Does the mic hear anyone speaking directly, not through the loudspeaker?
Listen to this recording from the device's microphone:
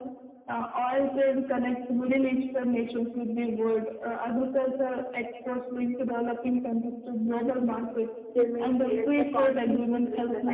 Yes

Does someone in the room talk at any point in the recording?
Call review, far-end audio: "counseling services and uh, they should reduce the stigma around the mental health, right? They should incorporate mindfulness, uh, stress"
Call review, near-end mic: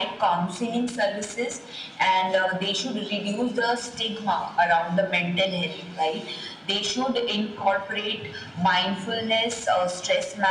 No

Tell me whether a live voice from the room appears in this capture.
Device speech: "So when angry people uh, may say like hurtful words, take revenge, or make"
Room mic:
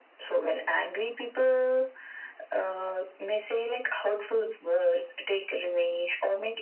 No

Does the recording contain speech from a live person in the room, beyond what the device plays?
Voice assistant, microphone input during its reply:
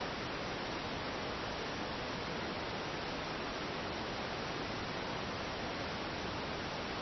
No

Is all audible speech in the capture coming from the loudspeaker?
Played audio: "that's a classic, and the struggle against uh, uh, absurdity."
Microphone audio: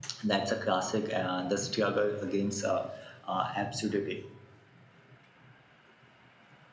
Yes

